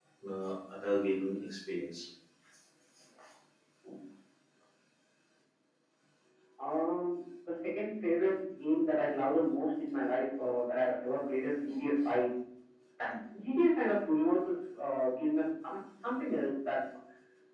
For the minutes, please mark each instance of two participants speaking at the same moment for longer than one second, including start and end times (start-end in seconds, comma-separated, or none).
none